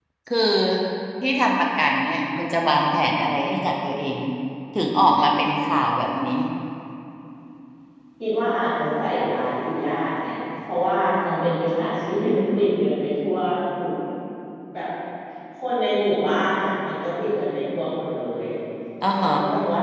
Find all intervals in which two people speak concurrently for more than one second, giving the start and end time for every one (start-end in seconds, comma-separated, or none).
none